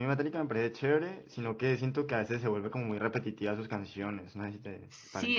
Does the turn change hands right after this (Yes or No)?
Yes